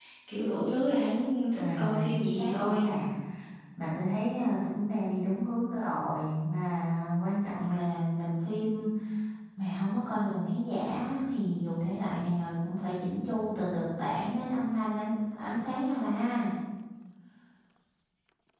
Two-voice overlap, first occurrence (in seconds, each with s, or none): 1.5 s